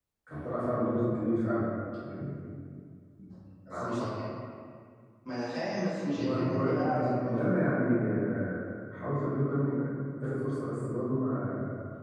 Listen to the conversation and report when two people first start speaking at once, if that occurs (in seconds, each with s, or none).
6.2 s